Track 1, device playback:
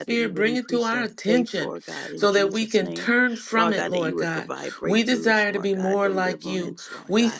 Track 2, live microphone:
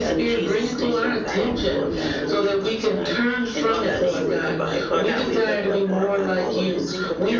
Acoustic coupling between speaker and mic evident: Yes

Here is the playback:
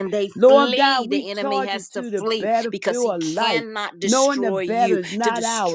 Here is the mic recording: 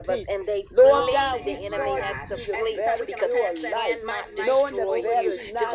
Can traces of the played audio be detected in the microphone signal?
Yes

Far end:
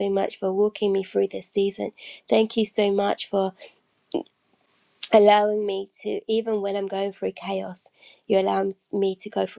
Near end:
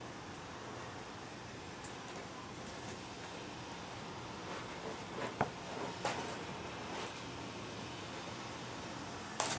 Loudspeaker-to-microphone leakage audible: No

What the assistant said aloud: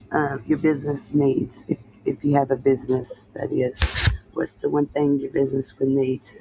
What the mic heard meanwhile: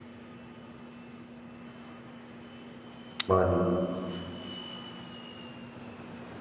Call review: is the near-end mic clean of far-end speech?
Yes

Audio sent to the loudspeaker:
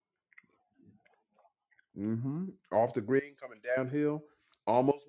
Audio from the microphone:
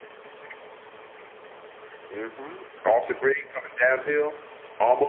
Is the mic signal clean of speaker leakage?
No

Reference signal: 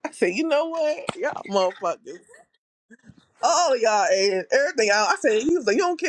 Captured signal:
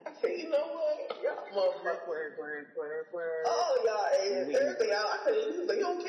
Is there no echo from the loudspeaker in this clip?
No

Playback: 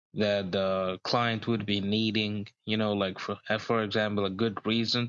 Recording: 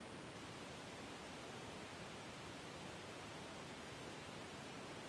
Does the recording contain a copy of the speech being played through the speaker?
No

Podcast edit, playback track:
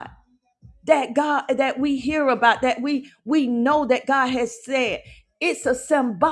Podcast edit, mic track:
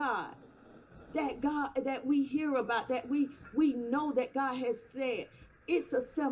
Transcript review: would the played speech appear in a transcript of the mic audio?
Yes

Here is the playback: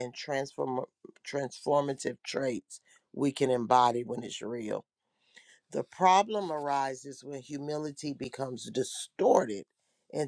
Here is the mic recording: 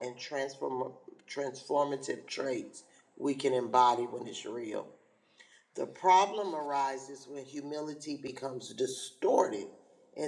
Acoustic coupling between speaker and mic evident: Yes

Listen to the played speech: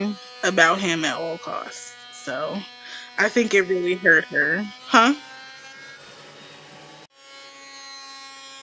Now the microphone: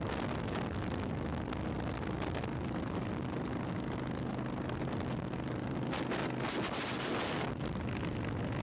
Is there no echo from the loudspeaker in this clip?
Yes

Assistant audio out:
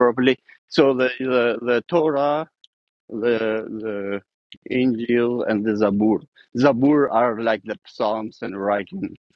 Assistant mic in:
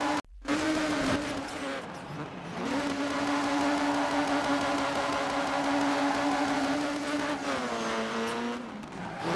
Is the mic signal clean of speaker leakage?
Yes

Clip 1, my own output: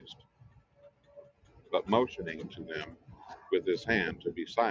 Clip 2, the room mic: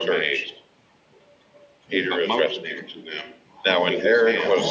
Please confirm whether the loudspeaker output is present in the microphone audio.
Yes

